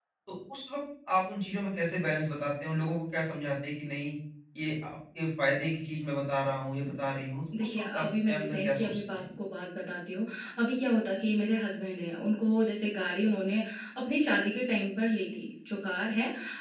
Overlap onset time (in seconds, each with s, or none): 7.5 s